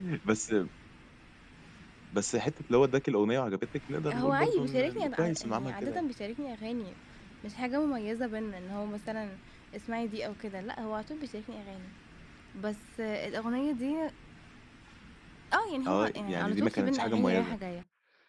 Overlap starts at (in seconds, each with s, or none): 4.1 s